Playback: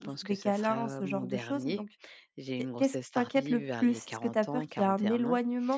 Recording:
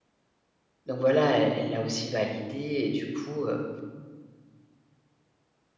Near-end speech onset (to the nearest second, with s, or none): 1 s